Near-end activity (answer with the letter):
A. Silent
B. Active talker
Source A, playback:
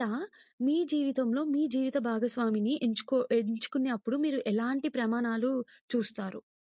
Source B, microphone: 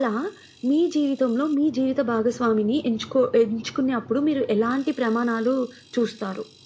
A